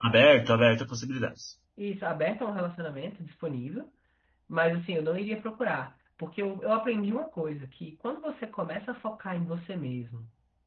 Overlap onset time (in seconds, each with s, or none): none